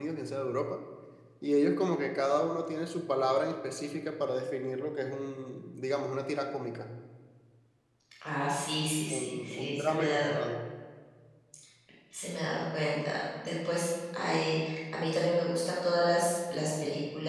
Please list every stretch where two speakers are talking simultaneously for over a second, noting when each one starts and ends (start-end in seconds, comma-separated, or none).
9.1-10.3